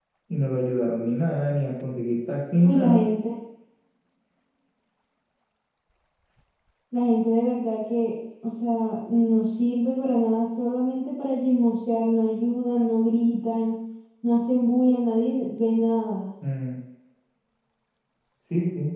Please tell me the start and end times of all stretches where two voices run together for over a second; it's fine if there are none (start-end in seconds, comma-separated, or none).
none